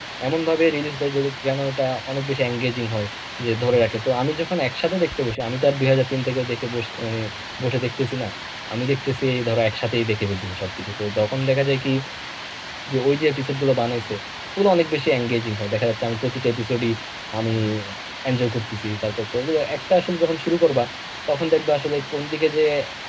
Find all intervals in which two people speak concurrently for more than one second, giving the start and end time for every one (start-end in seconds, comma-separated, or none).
none